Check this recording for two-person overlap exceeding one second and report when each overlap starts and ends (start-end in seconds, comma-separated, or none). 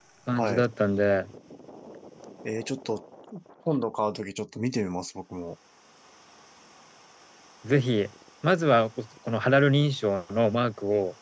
none